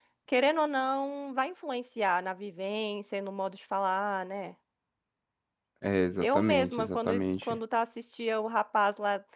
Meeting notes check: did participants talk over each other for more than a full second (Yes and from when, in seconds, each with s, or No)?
Yes, from 6.2 s